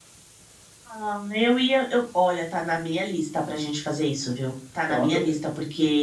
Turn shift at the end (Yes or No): No